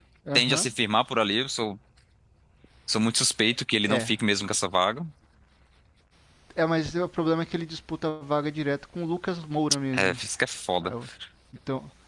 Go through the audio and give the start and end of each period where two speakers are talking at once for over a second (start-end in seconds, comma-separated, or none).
none